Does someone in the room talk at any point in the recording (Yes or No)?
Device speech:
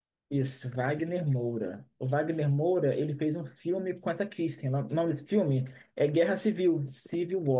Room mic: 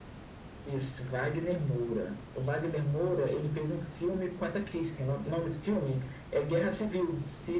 No